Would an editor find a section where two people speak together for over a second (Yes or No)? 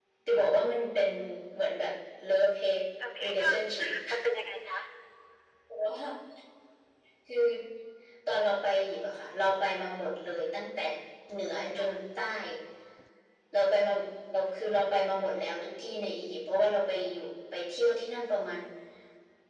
No